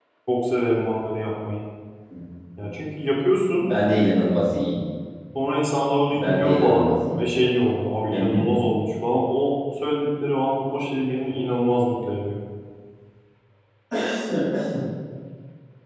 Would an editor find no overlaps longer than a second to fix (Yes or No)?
No